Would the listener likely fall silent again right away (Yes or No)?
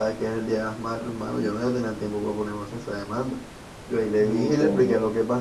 Yes